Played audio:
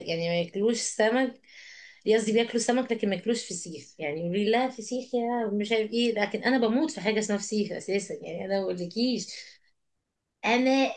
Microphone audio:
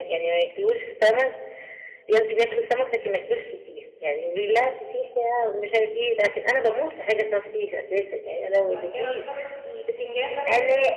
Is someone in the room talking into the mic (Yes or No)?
Yes